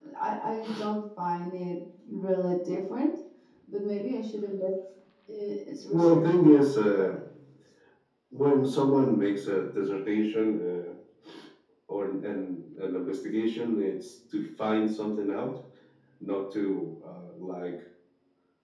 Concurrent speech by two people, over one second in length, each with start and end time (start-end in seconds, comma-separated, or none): 5.9-7.1